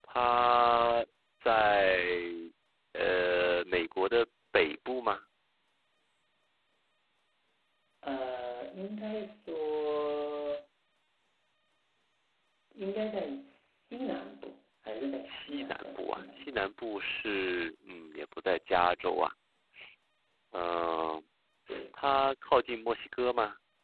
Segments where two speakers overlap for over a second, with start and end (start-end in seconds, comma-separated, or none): 15.2-16.7